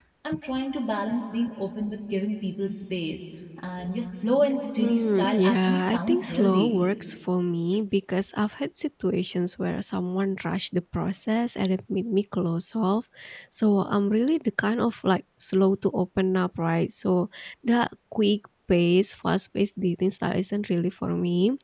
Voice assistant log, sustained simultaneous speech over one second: present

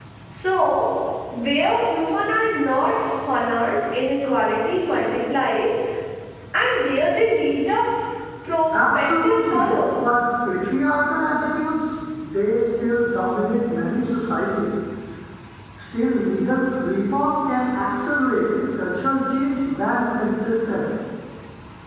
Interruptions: present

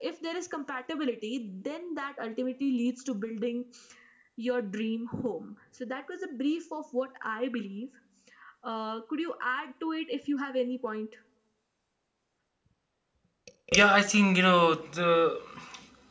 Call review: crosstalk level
none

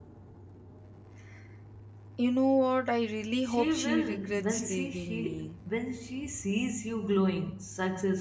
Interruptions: present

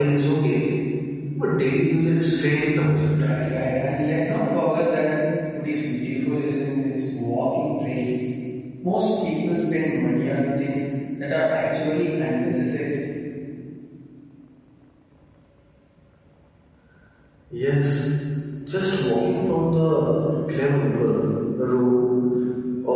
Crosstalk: none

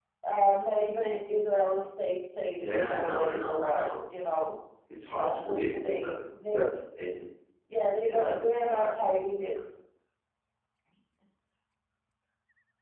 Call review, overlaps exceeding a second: present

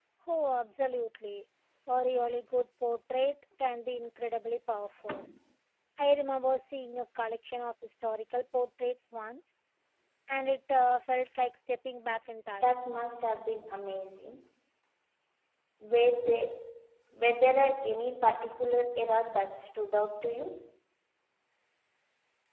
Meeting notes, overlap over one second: none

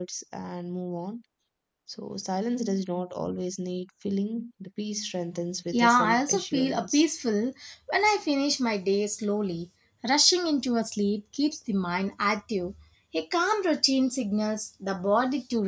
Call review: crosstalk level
present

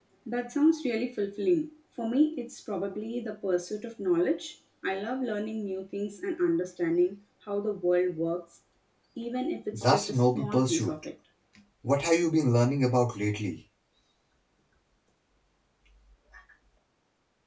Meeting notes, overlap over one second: present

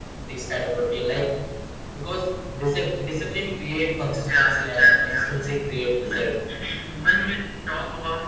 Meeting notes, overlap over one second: present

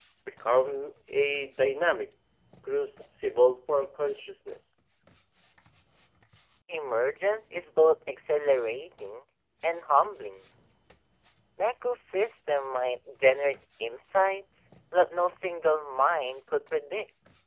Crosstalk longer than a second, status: none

